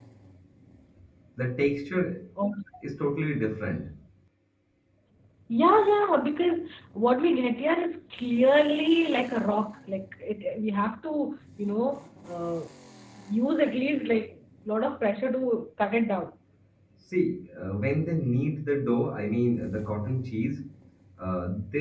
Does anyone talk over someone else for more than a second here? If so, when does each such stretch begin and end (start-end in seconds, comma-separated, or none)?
none